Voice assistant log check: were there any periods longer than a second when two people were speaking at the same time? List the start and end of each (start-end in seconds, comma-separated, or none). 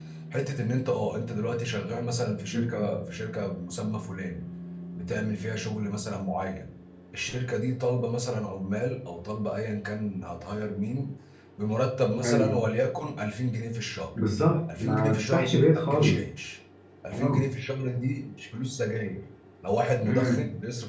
14.8-16.2